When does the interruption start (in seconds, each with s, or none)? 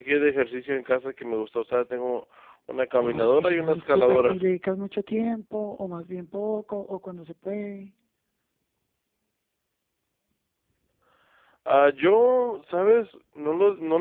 3.0 s